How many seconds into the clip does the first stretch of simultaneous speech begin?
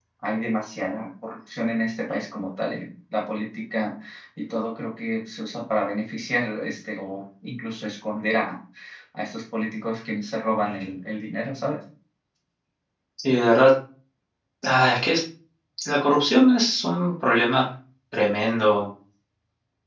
none

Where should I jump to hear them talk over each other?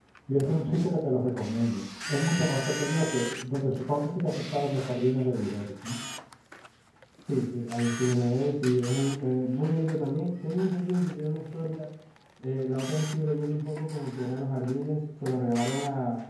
none

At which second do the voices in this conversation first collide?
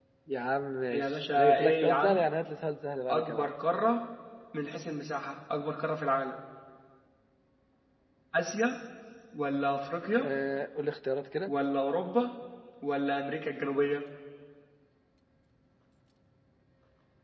0.9 s

